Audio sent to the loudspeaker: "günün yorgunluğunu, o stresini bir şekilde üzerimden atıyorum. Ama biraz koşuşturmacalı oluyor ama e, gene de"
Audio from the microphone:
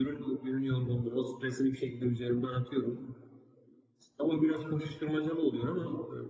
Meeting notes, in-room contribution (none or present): none